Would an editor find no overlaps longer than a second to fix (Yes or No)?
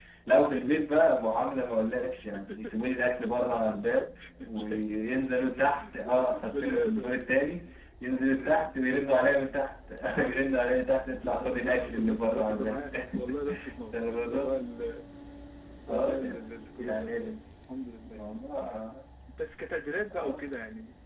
No